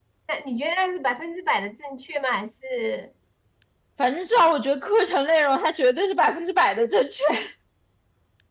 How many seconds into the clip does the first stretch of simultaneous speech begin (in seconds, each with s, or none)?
none